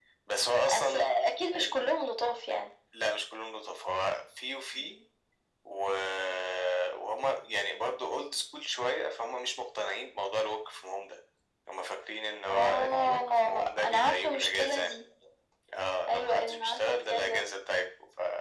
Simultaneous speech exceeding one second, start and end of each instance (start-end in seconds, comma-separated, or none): 12.5-14.9, 16.1-17.4